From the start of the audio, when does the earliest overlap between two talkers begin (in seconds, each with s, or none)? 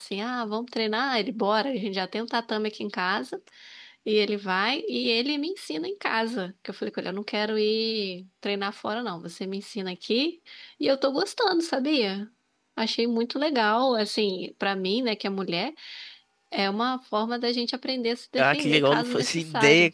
18.4 s